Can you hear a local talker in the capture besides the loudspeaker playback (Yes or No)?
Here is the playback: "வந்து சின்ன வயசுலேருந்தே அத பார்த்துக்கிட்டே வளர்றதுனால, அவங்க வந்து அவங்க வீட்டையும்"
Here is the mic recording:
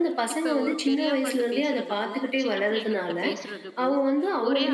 Yes